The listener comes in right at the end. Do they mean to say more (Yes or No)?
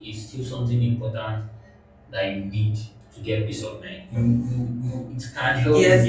Yes